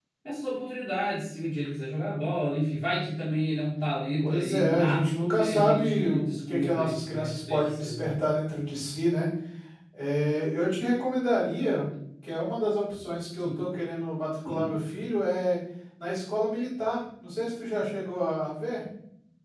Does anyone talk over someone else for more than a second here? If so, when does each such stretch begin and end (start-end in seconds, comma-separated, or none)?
4.2-8.1